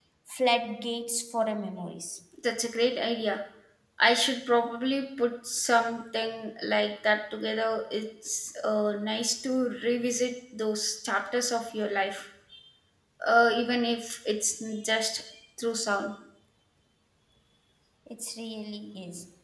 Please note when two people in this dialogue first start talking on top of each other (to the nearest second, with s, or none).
none